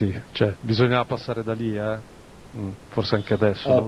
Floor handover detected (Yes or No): Yes